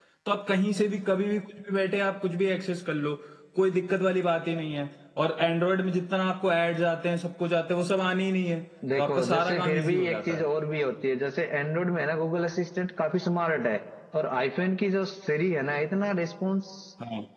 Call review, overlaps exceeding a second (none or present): present